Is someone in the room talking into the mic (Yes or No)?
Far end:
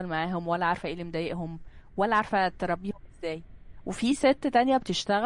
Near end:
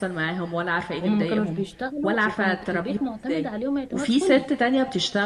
Yes